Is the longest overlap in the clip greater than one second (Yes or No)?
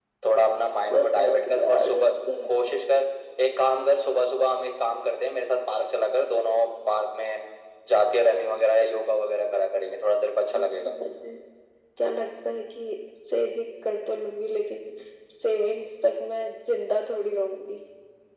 Yes